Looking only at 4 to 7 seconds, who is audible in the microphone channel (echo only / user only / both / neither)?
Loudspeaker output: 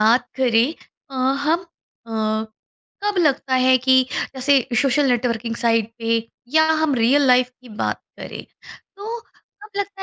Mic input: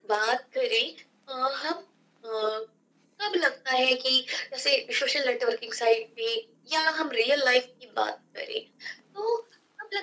echo only